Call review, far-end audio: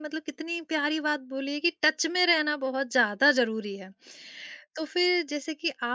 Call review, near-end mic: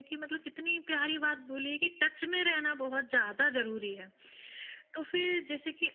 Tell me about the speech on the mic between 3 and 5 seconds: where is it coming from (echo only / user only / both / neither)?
echo only